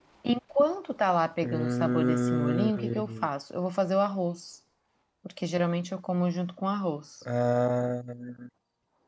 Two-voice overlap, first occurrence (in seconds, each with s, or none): 1.4 s